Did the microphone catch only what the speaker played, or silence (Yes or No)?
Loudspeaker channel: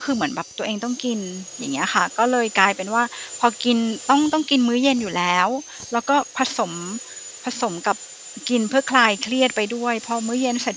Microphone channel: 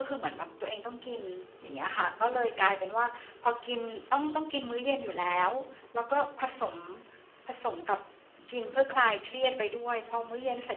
Yes